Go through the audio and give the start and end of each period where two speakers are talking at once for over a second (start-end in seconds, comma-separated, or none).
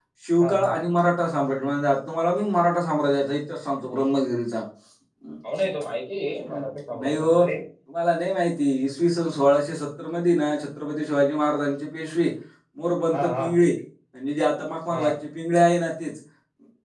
none